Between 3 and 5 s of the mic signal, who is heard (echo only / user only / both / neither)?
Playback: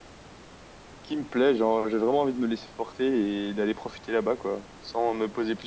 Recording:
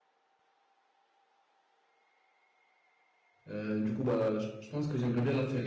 user only